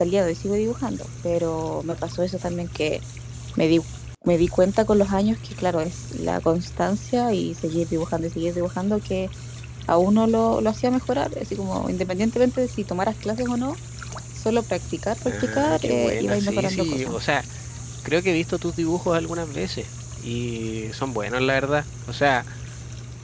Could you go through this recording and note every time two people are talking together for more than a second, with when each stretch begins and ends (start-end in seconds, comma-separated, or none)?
15.2-17.2